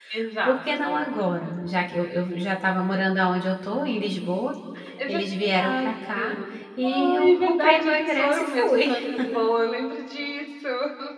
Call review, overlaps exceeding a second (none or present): present